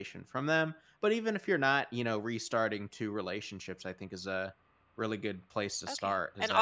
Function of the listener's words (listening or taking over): taking over